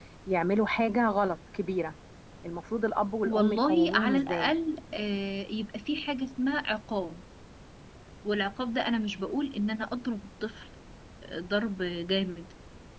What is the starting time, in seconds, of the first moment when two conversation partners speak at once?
3.2 s

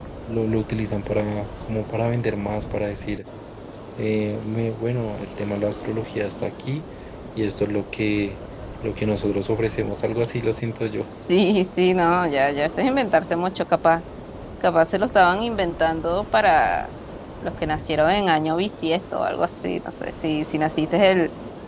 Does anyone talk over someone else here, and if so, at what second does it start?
none

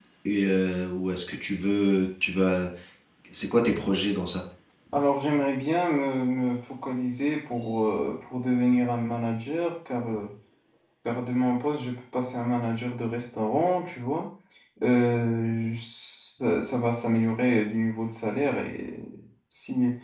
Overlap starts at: none

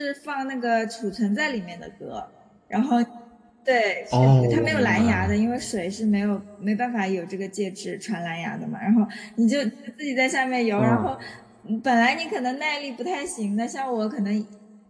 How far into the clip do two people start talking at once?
4.1 s

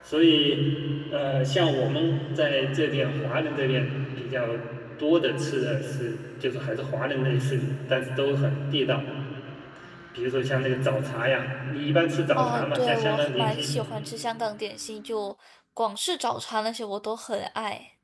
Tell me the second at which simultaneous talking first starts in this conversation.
12.4 s

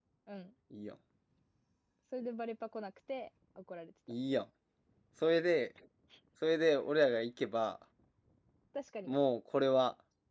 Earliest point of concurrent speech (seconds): none

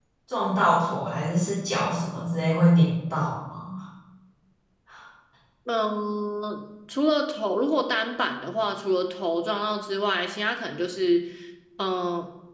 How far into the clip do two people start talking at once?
none

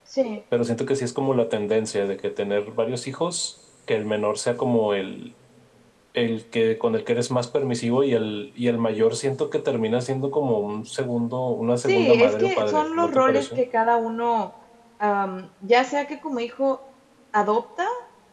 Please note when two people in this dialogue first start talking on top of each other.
11.9 s

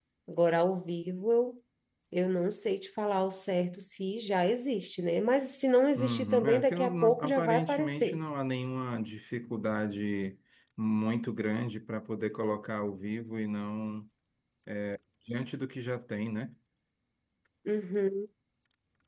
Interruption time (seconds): 6.0 s

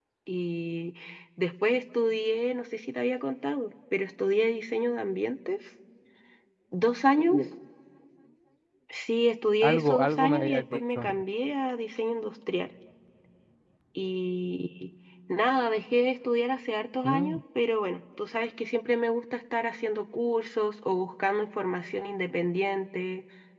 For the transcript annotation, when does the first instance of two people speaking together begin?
9.6 s

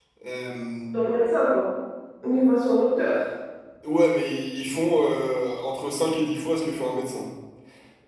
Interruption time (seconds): none

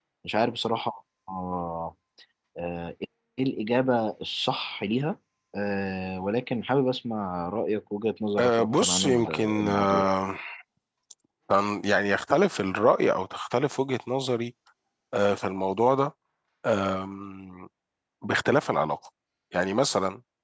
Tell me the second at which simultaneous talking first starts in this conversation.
8.4 s

